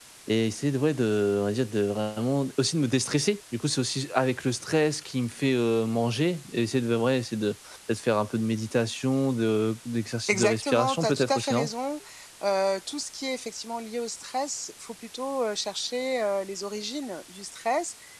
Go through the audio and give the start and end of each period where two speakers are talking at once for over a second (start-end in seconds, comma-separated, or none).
10.3-11.7